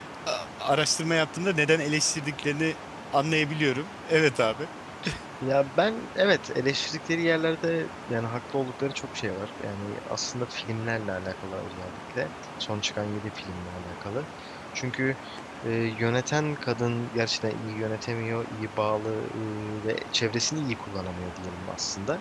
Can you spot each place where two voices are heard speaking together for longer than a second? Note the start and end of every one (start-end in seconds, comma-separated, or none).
none